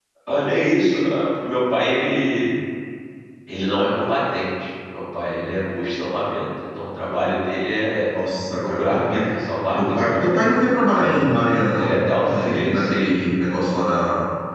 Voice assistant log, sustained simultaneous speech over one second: present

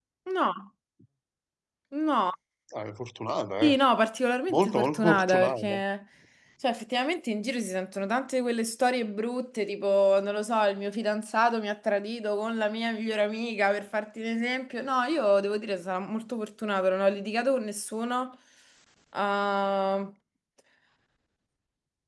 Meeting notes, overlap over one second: present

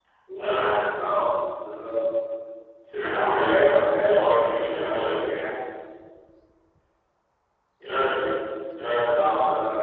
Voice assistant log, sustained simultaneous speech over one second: present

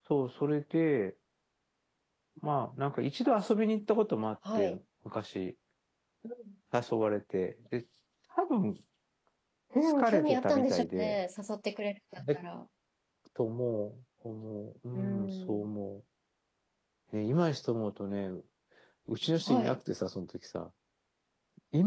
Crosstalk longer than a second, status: present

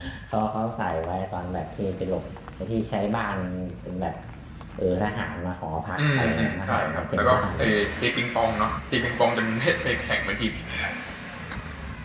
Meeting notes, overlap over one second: present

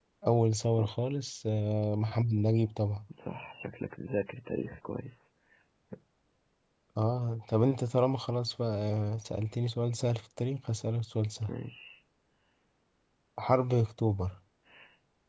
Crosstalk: none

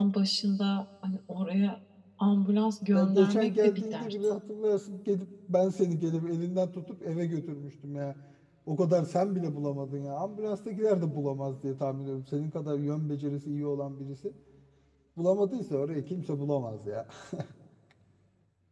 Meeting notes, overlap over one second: present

